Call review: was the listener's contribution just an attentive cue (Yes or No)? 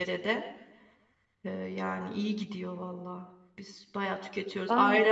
Yes